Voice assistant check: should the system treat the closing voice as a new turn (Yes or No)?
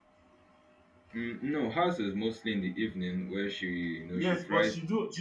Yes